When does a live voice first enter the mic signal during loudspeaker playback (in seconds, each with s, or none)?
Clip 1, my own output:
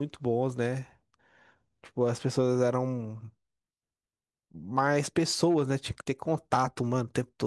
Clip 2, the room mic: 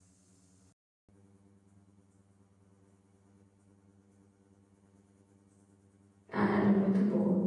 6.3 s